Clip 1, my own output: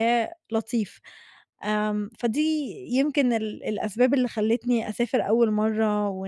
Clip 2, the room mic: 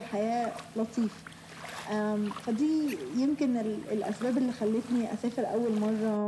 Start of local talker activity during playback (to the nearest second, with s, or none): none